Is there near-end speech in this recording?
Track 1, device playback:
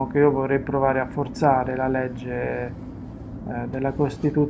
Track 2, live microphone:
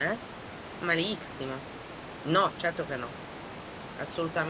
Yes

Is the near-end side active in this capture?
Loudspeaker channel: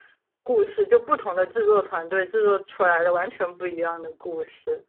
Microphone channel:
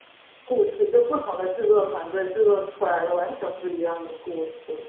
No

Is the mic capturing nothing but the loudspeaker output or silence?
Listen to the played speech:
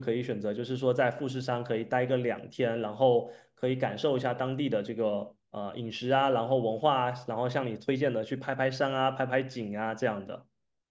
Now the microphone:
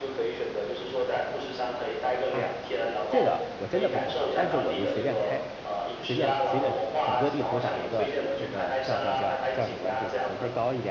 No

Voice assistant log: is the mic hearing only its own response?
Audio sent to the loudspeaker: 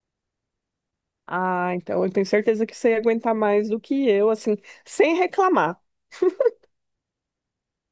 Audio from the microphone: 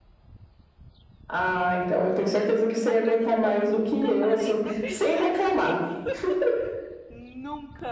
No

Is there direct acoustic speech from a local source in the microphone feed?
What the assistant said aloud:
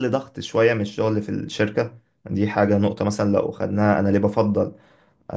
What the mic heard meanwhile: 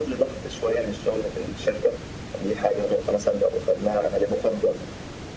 No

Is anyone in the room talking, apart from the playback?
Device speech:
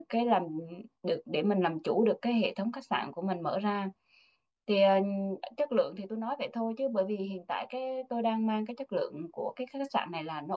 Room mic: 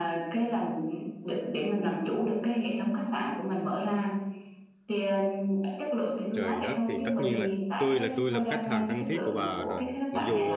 Yes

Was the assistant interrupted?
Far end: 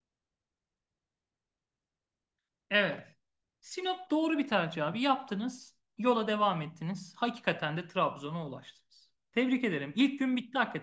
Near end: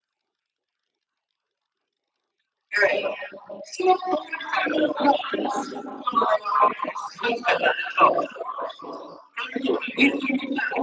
No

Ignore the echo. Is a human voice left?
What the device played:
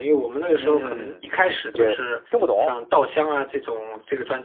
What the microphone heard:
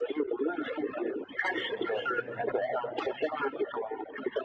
Yes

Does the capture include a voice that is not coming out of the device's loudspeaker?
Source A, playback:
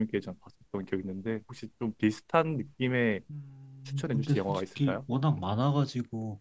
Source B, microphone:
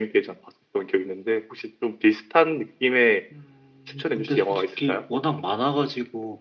No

